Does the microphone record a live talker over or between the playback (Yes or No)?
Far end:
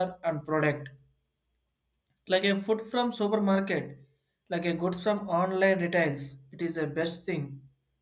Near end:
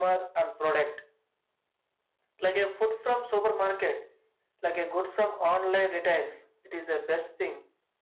No